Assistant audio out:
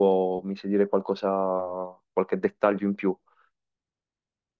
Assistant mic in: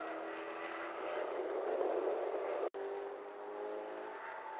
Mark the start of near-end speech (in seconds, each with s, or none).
none